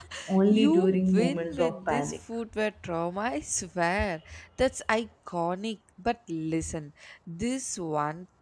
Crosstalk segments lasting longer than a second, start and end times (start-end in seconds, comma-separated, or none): 0.5-2.2